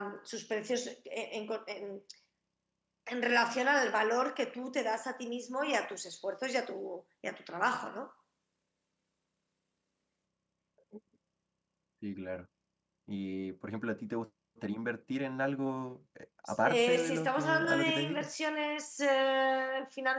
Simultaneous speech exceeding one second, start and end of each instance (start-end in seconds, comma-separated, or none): 16.6-18.3